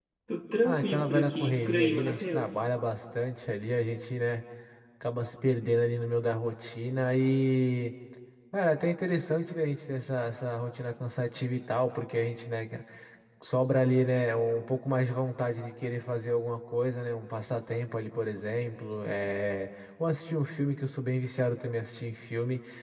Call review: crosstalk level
present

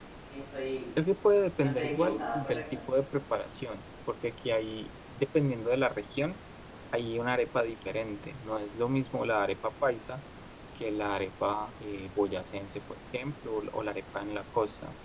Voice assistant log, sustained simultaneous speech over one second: present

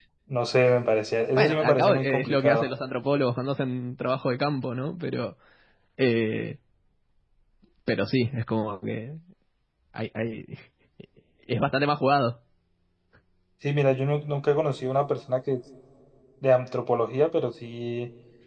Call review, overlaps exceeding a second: present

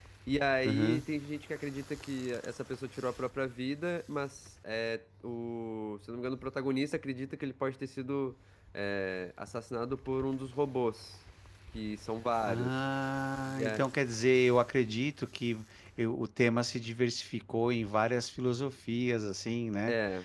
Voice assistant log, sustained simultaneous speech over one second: none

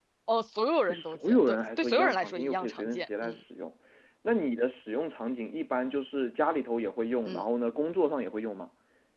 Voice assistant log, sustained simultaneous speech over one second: present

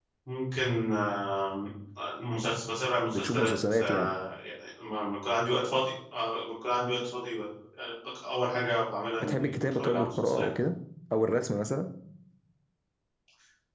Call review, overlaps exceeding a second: present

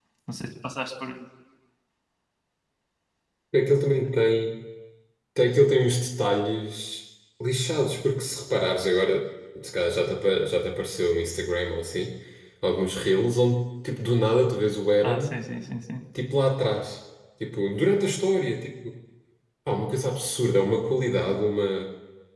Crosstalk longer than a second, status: none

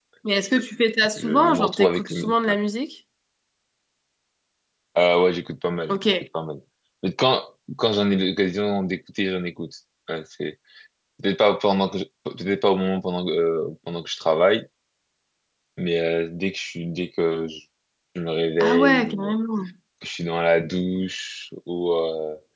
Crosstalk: present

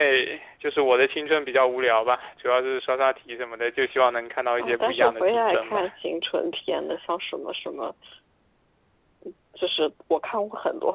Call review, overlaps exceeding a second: present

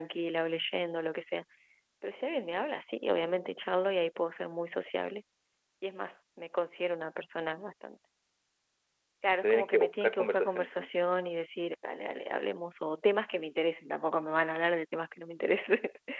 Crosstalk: present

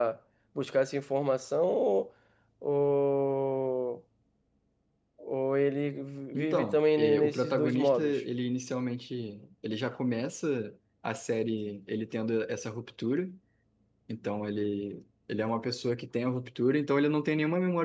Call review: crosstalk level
present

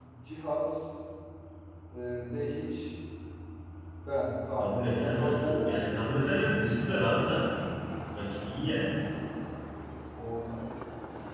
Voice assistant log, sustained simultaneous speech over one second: present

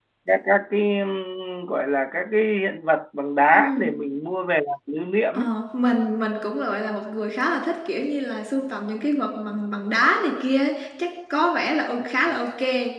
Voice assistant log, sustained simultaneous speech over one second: none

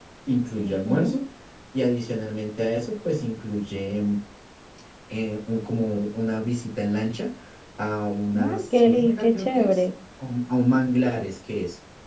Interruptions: present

